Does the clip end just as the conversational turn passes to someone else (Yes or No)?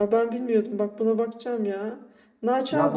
Yes